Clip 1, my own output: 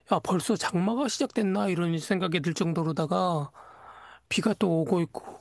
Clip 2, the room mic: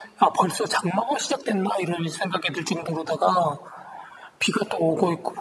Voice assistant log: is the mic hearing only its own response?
Yes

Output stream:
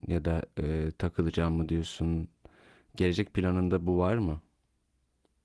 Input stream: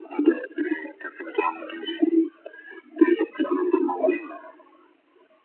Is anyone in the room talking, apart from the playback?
No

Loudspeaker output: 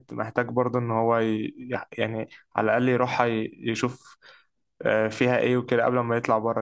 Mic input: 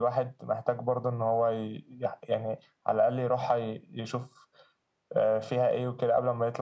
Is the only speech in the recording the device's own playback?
Yes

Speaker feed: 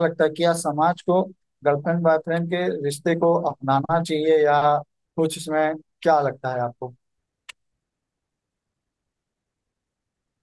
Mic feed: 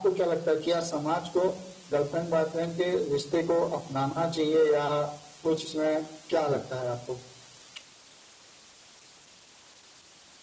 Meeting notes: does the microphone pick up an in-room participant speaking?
Yes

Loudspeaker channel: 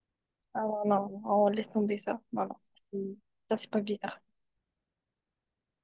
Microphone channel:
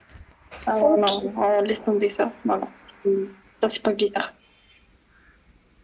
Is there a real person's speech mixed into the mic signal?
Yes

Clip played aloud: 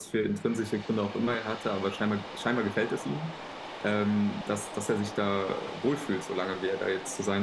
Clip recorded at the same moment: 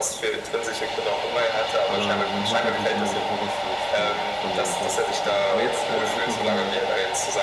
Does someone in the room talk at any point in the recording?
Yes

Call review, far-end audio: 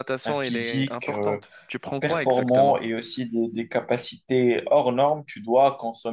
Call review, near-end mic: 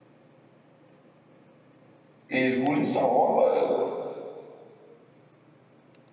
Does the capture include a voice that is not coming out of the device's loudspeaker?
Yes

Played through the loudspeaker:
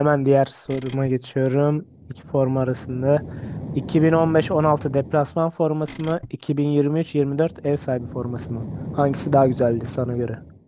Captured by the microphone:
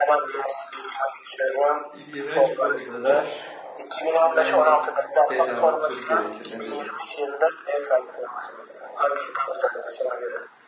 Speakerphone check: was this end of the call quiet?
No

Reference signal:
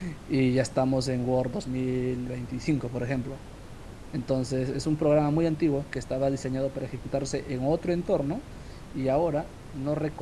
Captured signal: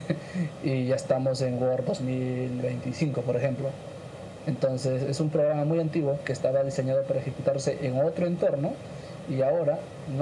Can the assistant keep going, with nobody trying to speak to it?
Yes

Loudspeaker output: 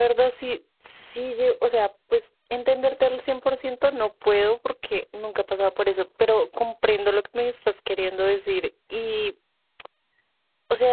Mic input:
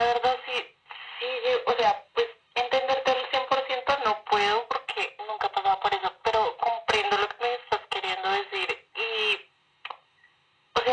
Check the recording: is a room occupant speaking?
No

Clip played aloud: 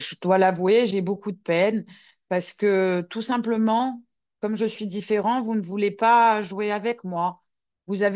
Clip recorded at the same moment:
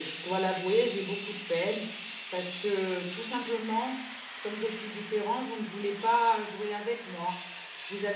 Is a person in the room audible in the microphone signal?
No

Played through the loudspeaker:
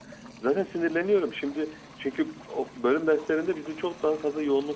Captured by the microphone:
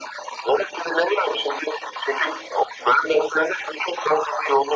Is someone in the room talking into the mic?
No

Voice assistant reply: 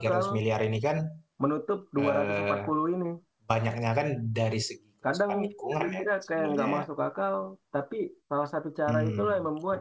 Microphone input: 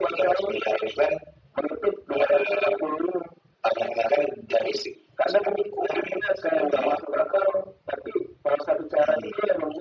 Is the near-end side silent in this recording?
Yes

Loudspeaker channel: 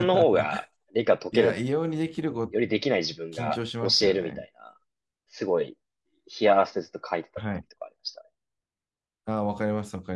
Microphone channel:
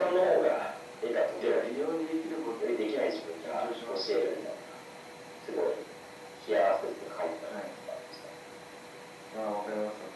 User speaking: No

